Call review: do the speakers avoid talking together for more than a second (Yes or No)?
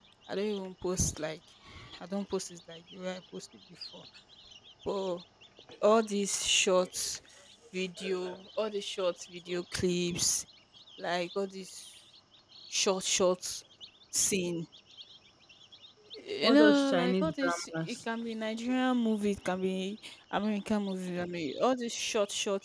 No